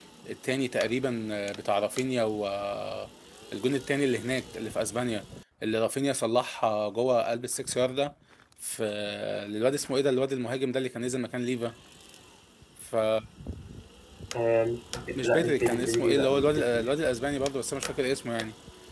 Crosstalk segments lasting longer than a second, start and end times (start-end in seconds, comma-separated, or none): 15.2-16.9